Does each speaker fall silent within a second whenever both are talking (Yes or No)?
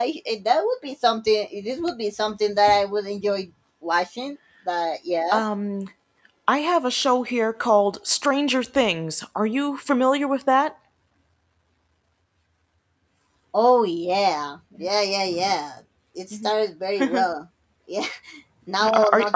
Yes